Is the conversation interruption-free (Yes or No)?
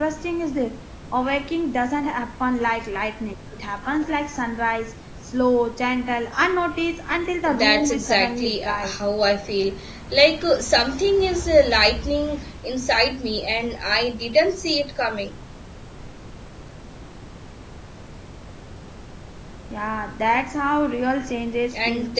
No